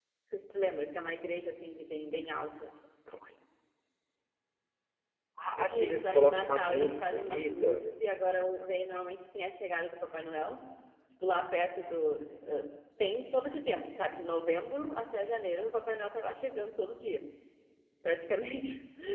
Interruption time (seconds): 5.5 s

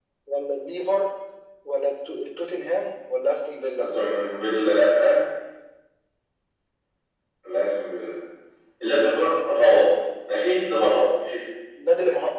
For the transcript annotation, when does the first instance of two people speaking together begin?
none

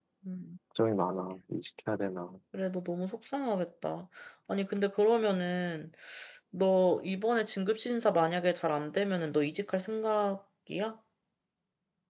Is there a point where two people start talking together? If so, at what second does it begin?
none

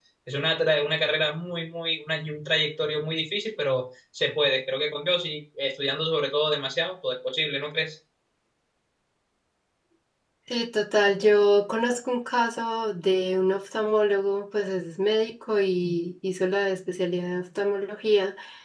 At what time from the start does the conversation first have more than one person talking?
none

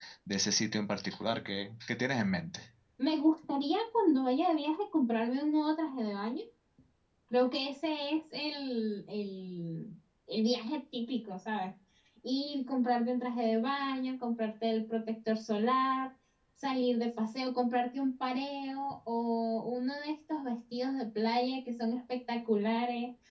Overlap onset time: none

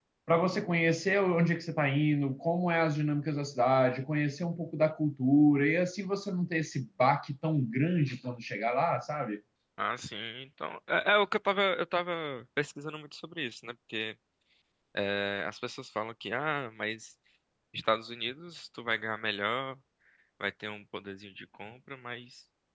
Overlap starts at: none

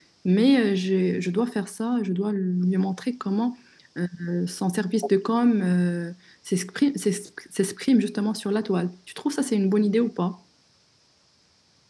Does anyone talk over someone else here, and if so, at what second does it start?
none

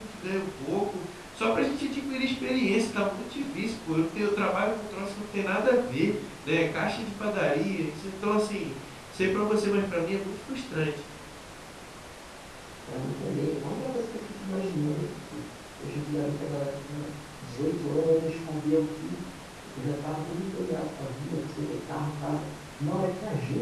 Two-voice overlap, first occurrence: none

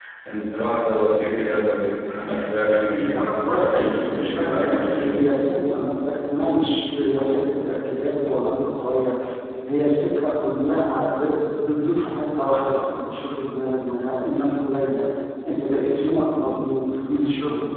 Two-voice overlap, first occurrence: 2.9 s

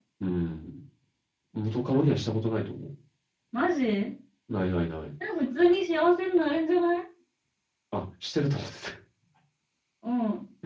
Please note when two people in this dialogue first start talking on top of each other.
none

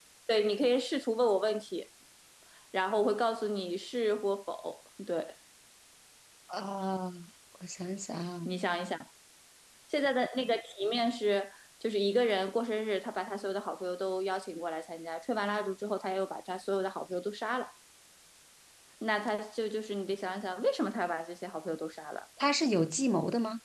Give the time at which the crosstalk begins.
none

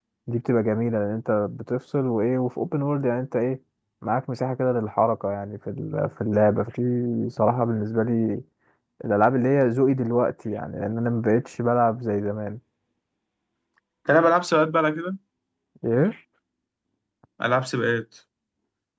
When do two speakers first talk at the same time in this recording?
none

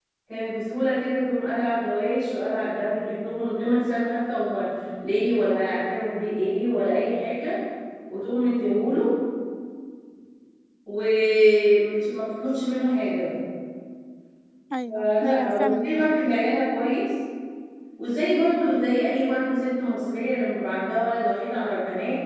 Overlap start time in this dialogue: 14.9 s

